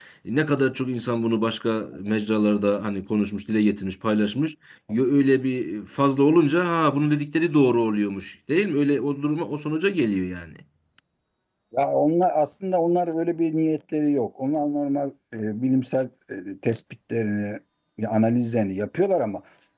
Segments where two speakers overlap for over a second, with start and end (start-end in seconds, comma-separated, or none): none